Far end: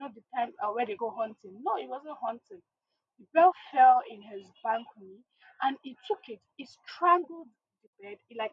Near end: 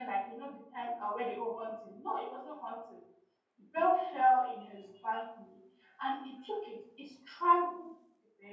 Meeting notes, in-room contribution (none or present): none